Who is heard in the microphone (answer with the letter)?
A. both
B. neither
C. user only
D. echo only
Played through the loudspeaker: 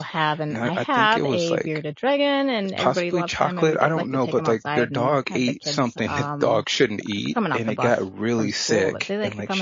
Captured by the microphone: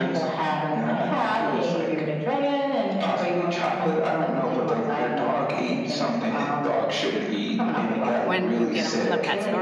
A